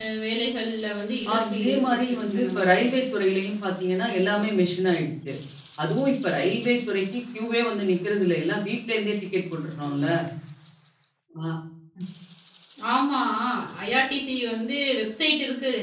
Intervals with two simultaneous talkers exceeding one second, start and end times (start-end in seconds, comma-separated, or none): 1.3-2.8